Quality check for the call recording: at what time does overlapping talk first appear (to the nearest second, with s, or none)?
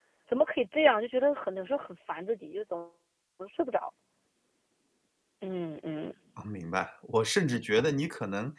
none